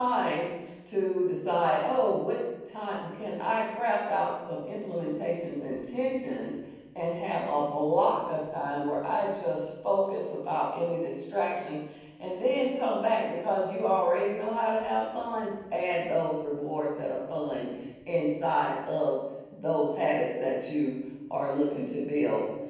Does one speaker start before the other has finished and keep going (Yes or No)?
No